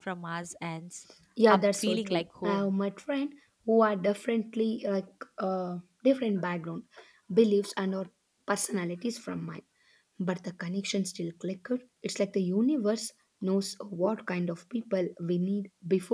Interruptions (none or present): present